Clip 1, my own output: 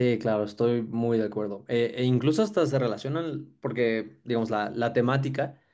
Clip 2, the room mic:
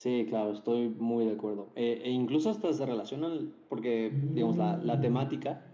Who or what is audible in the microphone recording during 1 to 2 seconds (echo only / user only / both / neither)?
echo only